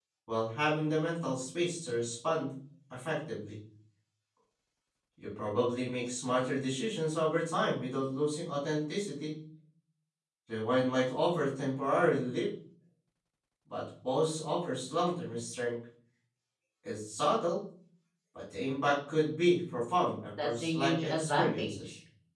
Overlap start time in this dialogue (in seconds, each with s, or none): 20.4 s